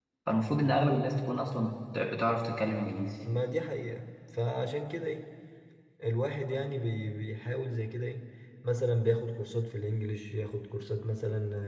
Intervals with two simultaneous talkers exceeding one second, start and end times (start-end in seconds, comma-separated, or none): none